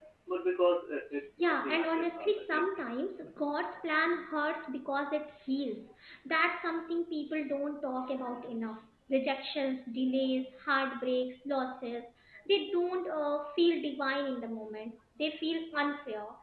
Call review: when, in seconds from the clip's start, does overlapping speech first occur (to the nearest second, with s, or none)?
1 s